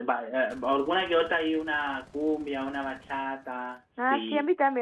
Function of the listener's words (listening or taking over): taking over